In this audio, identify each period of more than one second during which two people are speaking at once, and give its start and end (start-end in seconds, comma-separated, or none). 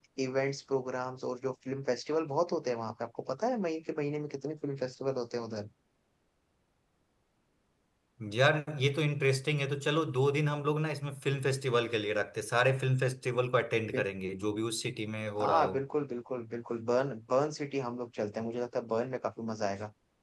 none